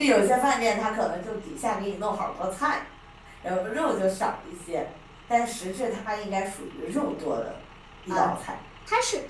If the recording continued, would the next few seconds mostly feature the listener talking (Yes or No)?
Yes